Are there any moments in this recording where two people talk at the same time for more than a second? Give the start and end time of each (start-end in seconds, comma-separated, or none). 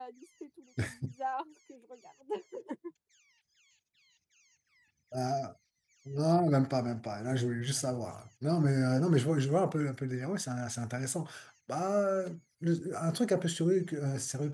none